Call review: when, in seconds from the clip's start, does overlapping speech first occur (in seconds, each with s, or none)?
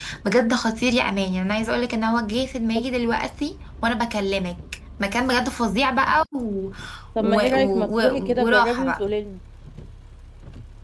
7.2 s